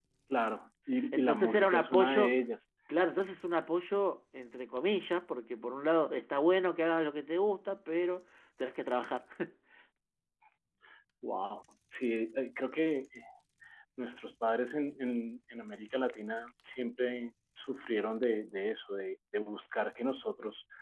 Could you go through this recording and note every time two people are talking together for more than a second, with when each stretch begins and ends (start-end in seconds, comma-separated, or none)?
1.1-2.3